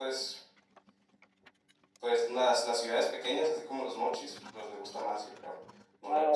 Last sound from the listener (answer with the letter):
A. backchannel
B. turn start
B